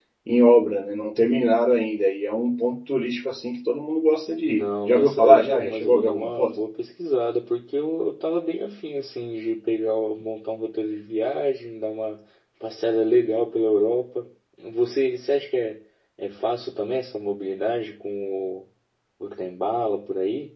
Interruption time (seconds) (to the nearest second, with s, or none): 4 s